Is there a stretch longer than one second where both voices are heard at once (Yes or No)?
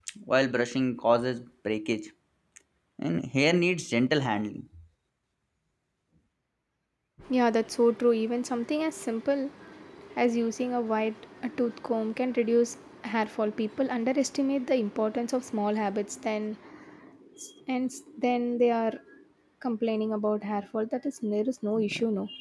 No